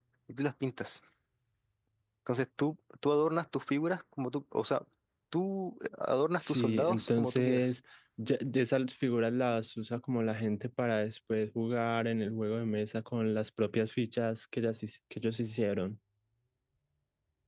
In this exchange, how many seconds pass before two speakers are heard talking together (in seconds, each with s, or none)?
6.4 s